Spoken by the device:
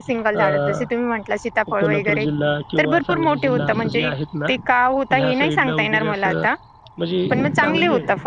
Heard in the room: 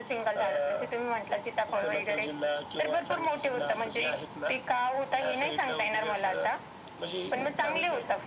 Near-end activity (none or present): none